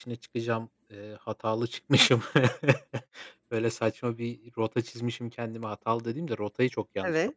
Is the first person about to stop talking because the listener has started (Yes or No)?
Yes